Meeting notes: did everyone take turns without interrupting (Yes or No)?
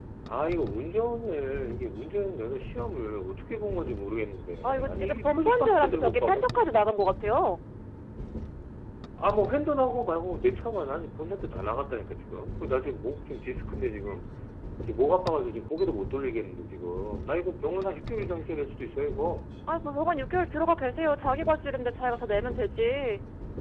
No